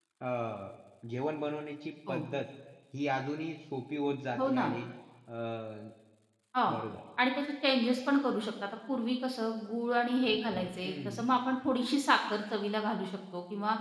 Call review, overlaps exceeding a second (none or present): none